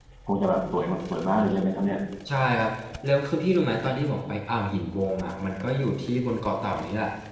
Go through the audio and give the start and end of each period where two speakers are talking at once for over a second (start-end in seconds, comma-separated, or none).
none